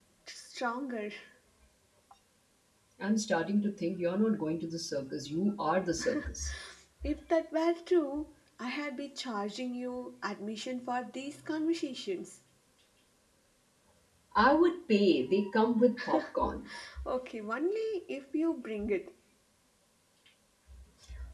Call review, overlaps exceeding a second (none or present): none